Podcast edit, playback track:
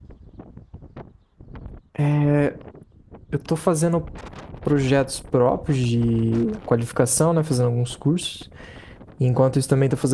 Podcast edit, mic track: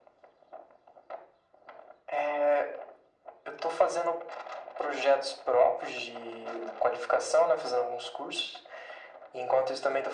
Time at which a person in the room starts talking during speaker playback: none

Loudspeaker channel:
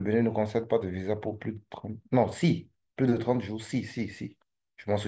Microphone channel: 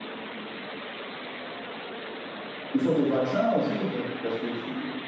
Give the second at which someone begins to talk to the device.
3 s

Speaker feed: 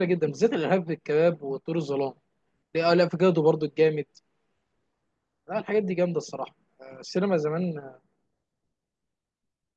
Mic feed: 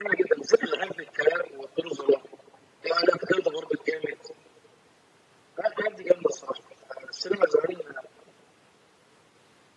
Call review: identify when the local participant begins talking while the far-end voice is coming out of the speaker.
none

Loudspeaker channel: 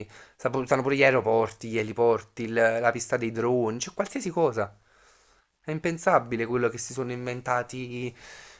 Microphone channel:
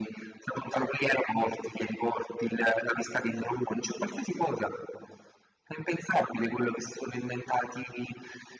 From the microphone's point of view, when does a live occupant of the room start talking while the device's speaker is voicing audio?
none

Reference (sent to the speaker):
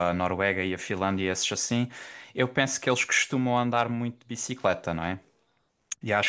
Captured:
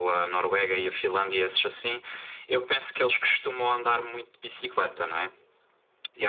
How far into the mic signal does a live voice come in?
none

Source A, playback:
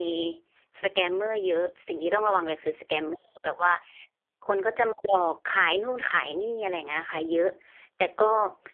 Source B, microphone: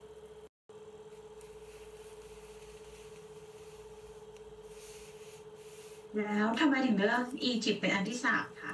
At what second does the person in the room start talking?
6 s

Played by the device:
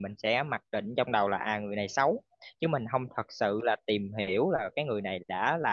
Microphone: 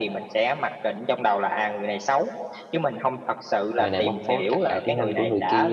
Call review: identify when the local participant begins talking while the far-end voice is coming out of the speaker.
4 s

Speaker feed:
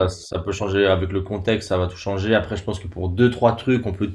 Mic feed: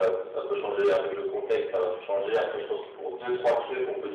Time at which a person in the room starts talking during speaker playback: none

